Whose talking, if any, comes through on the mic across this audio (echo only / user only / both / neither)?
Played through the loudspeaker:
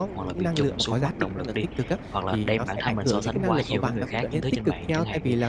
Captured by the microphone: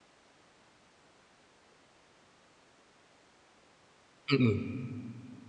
user only